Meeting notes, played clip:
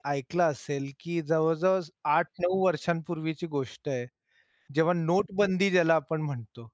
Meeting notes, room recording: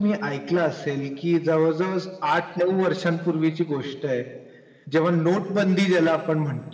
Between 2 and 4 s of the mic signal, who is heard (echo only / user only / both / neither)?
echo only